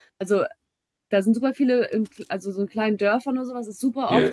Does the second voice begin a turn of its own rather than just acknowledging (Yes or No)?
No